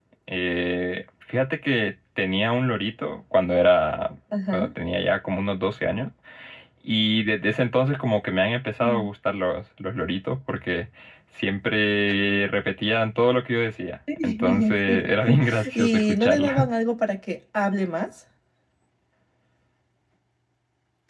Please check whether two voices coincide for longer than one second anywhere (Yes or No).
Yes